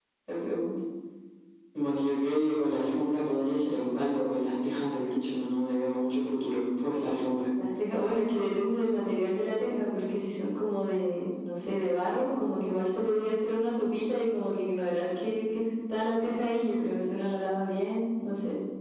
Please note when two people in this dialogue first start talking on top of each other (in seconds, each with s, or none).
none